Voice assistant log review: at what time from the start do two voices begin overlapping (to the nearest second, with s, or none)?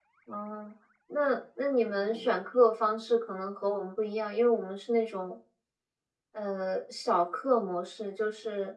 none